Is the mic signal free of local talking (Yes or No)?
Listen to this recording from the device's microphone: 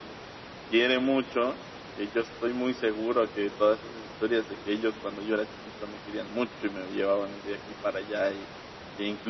Yes